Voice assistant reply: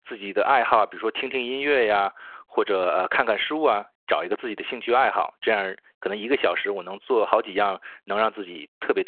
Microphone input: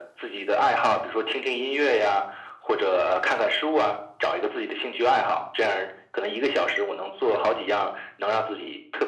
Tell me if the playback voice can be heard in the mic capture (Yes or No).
Yes